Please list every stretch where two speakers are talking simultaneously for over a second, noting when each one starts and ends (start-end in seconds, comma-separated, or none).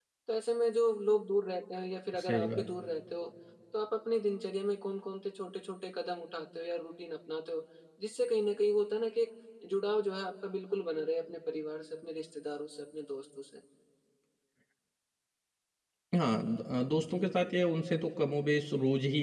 none